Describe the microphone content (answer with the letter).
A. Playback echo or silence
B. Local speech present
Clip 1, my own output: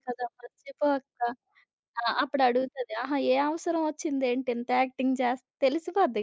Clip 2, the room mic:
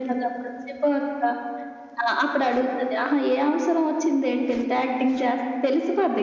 A